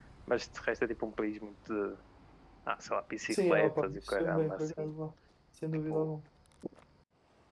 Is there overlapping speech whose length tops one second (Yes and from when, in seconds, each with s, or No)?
Yes, from 3.3 s